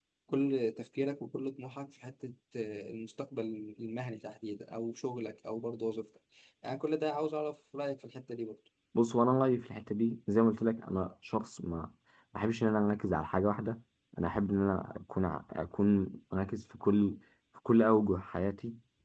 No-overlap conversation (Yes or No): Yes